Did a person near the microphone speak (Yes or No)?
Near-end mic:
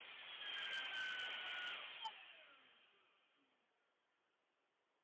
No